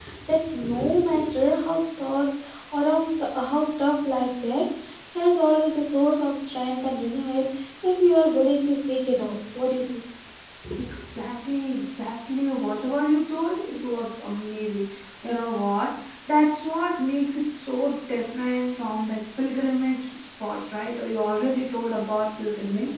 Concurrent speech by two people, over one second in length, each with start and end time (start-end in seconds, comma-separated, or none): none